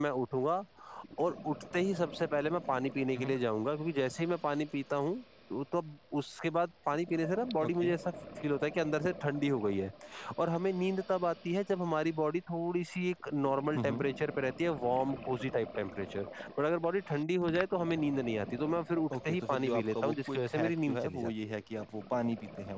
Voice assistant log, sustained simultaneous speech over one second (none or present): present